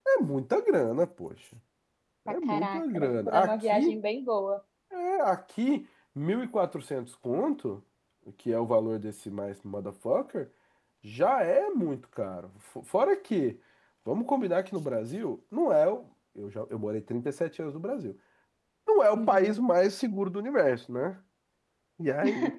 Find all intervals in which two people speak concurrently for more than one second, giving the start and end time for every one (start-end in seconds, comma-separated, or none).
2.3-4.0